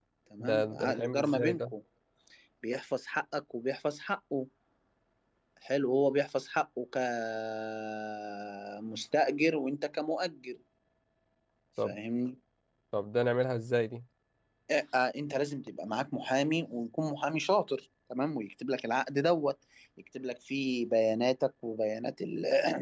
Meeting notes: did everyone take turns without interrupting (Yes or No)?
No